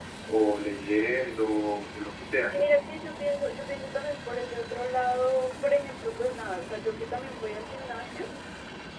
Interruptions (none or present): none